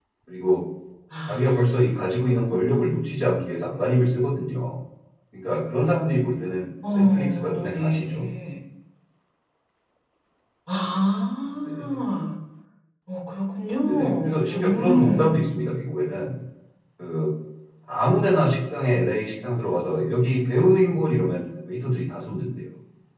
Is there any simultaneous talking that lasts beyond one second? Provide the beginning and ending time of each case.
6.9-8.2, 13.8-15.5

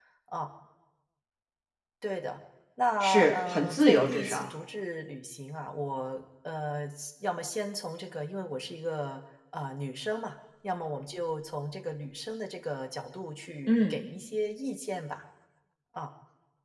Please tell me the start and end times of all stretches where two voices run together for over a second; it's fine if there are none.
3.0-4.5

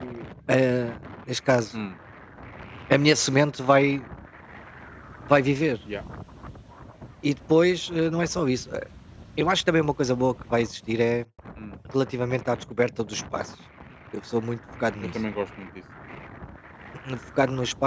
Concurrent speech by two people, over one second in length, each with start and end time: none

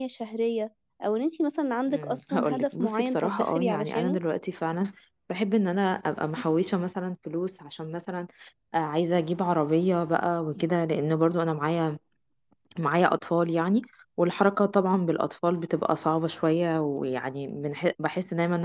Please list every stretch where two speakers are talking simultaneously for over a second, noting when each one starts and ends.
1.9-4.2

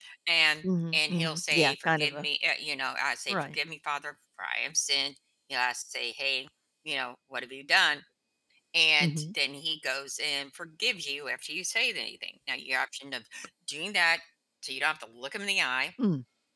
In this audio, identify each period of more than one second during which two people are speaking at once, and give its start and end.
0.9-2.3

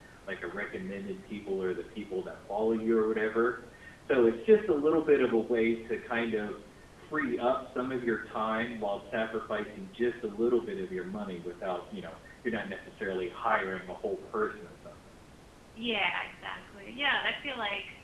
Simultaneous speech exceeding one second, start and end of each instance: none

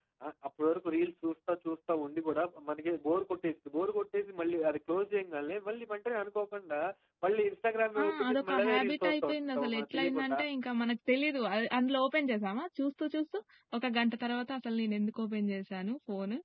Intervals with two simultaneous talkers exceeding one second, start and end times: 8.0-10.4

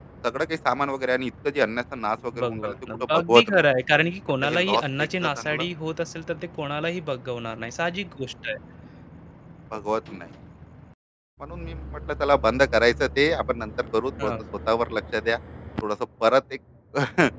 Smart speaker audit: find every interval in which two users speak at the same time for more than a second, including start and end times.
2.4-3.7, 4.4-5.7

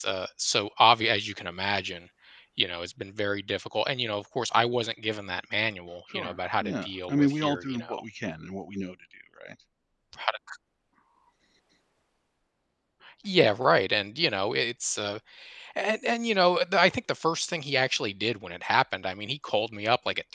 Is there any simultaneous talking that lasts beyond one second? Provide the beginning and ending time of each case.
6.1-8.0

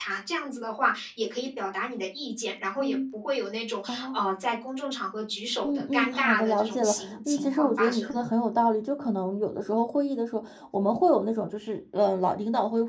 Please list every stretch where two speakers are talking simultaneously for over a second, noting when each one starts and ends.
5.6-8.2

